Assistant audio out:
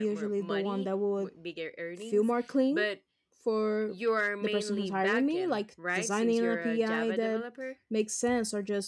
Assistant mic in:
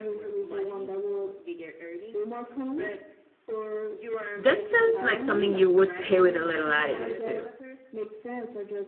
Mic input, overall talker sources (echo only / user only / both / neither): both